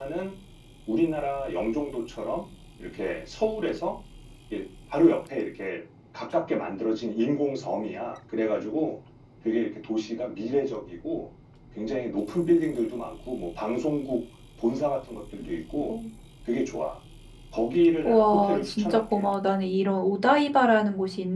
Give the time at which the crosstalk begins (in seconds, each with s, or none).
18.0 s